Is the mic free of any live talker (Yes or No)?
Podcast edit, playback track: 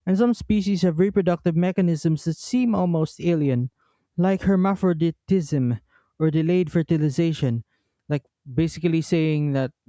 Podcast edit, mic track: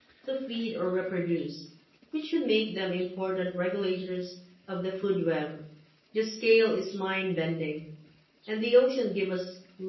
No